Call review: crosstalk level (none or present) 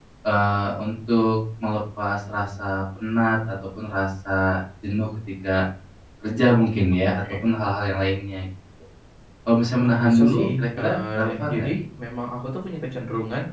present